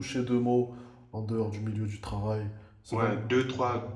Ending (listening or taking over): taking over